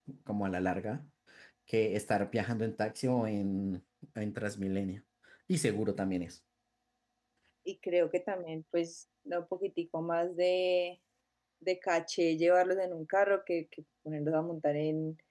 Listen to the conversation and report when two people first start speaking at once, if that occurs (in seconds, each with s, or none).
none